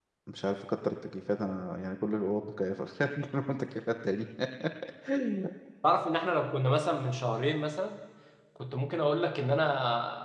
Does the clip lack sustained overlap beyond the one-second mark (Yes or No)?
Yes